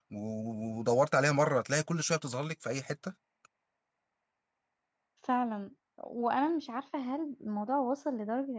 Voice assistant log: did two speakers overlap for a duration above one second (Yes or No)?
No